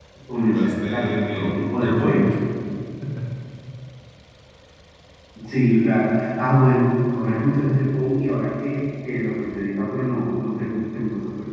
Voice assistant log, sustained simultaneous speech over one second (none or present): present